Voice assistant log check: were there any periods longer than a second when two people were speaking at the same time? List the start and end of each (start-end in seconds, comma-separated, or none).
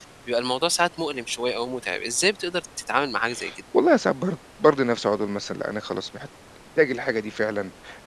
none